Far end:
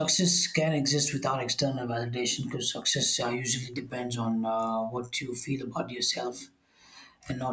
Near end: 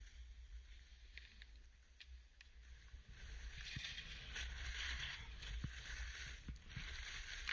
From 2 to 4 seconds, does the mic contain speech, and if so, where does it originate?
neither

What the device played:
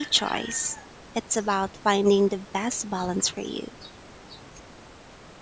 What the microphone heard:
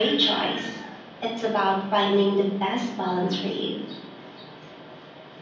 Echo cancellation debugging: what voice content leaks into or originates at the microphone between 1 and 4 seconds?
echo only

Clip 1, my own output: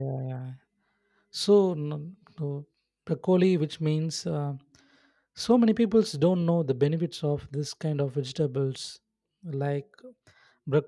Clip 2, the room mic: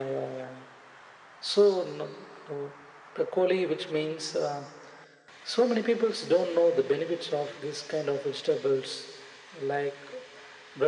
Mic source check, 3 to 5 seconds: echo only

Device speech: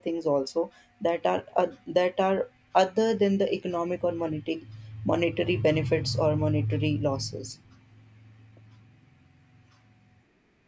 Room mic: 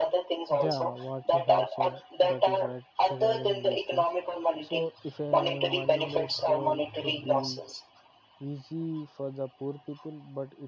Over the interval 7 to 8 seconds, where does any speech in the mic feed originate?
both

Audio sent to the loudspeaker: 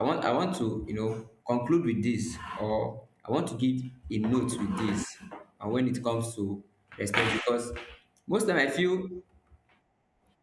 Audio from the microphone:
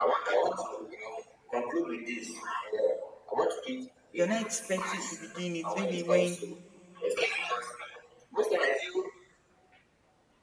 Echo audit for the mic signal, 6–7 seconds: both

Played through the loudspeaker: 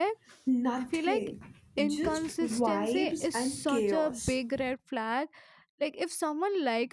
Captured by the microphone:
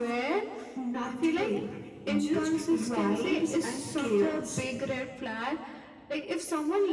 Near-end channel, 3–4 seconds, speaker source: echo only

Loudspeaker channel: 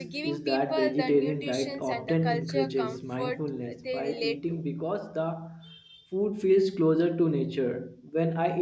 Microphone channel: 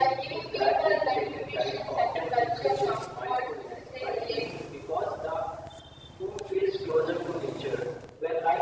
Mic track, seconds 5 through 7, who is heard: echo only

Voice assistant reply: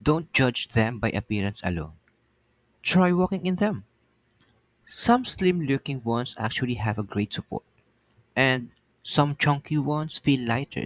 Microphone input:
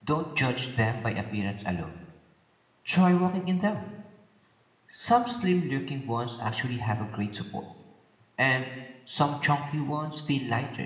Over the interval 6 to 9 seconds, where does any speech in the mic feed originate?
echo only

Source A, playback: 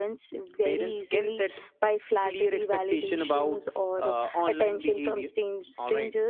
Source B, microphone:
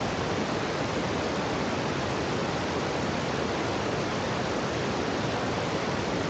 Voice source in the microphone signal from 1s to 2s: neither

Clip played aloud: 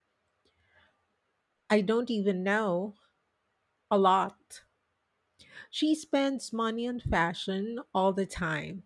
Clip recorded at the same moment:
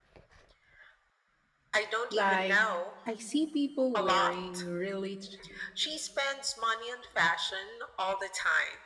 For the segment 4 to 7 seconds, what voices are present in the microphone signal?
both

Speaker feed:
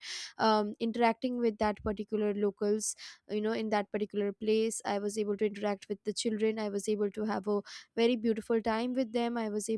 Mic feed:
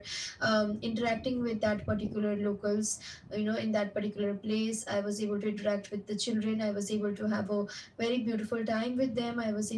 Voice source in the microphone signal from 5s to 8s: echo only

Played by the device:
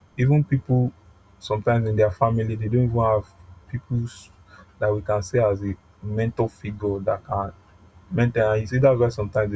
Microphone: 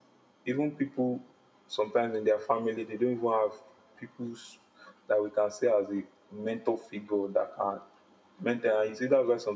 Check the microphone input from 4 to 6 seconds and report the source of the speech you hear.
echo only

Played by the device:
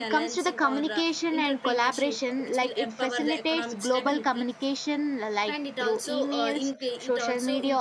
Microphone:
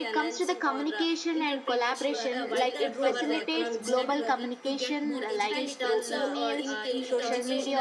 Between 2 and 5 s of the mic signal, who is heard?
both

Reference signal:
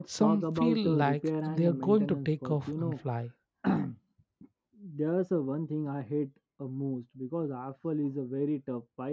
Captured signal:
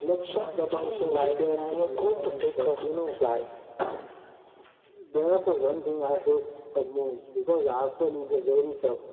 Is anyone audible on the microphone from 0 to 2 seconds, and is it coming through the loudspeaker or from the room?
echo only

